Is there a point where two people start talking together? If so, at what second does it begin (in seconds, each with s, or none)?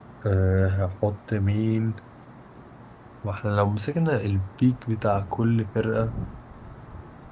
none